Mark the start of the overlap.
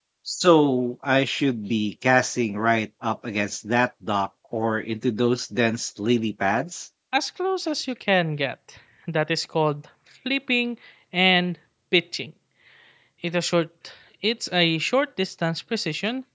none

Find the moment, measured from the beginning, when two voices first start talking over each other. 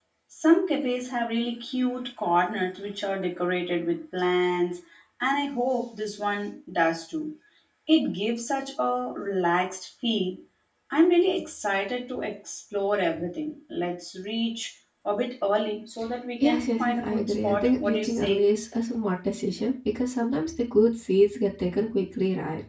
16.4 s

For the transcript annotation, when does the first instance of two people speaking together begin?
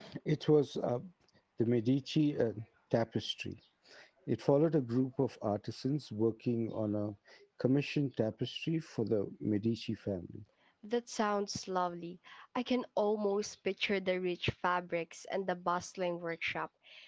none

